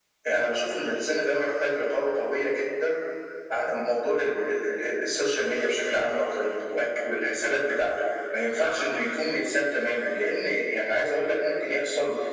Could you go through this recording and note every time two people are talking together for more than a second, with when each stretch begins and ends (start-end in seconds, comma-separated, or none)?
none